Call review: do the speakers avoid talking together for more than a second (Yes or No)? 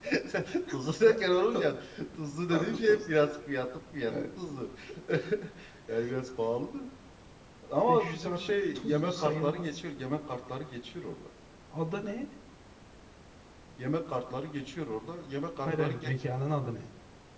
No